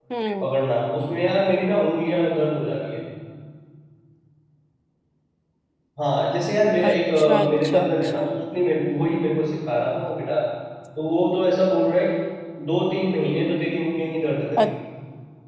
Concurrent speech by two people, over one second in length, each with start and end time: 6.9-8.2

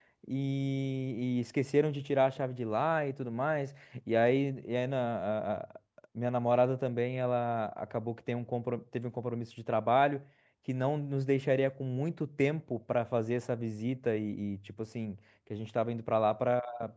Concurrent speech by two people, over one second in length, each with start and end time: none

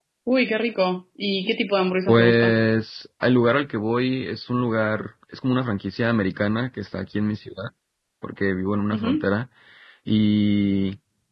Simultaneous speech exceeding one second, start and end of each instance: none

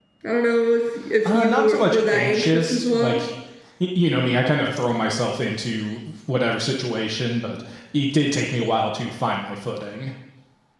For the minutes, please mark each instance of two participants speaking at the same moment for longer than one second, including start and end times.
1.2-3.2

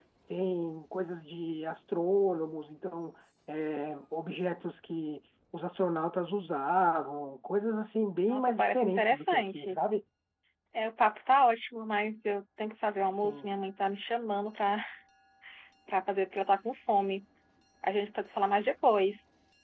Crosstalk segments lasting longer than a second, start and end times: 8.3-9.8

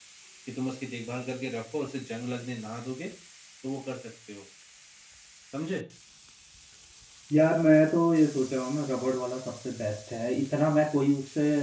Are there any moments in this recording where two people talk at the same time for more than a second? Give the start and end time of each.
none

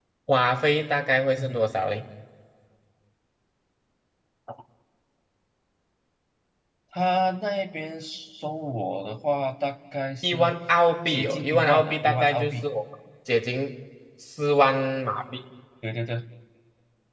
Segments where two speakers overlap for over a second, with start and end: 11.1-12.7

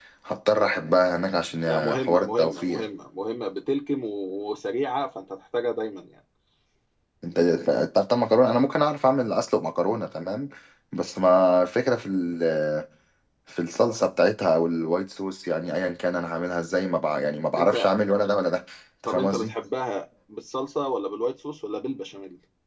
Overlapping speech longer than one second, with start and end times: 1.6-2.9

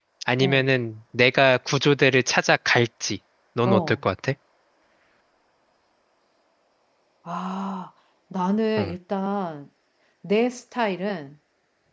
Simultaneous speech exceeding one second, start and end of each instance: none

